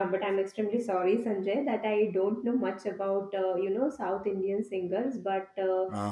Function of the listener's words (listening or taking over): listening